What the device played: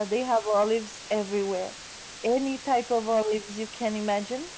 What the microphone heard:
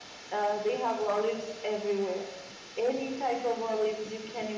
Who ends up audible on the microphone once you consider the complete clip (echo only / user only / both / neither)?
echo only